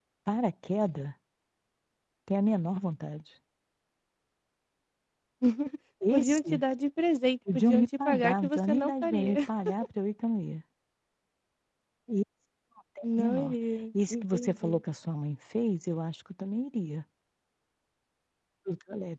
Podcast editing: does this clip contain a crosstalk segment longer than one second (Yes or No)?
Yes